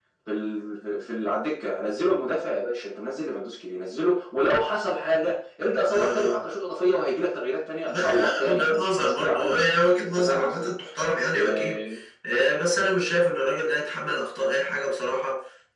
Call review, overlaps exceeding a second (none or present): present